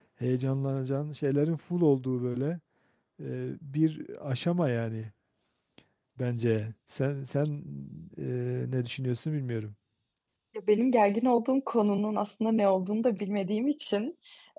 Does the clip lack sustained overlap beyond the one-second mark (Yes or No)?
Yes